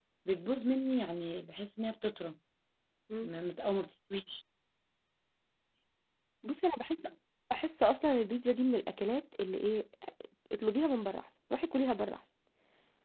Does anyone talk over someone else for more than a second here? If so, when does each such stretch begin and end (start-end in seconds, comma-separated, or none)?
none